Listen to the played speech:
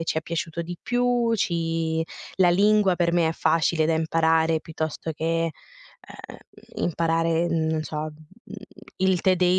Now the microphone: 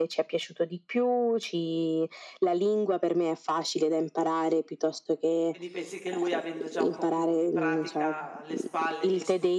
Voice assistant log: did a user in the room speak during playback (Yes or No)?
Yes